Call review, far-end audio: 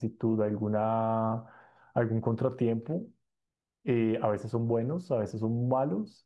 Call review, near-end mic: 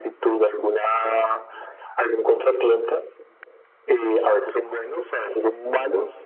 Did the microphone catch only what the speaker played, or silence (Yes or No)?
Yes